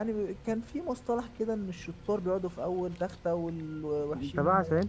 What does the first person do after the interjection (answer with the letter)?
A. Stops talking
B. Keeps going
A